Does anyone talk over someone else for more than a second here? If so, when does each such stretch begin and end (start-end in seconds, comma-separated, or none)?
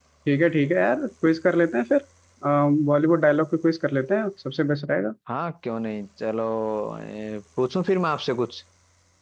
none